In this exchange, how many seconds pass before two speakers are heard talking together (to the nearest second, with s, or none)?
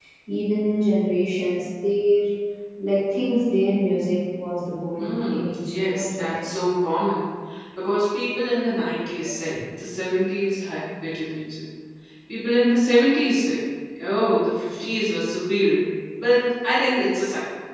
5 s